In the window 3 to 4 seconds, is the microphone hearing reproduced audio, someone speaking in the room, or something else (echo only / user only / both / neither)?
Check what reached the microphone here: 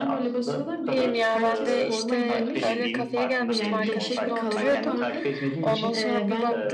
both